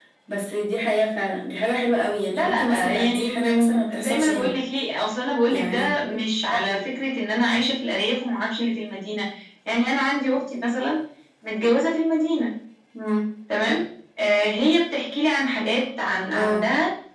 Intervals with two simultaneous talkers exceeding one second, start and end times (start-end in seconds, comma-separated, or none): 2.3-4.5